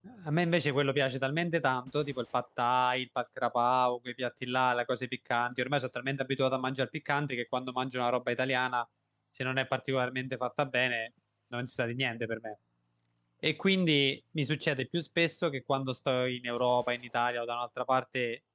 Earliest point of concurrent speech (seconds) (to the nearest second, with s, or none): none